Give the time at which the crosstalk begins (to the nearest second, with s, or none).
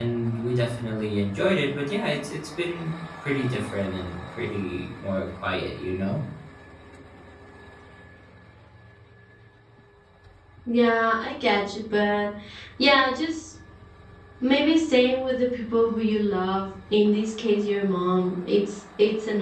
none